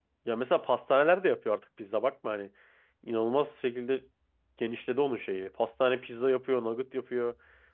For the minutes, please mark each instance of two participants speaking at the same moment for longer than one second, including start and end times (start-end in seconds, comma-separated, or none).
none